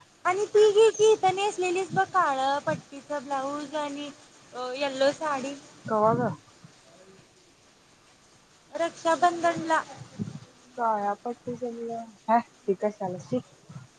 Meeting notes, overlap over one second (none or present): none